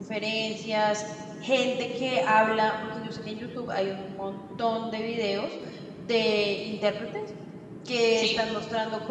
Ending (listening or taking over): listening